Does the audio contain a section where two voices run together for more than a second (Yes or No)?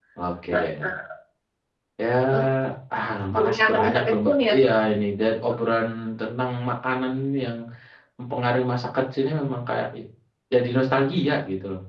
Yes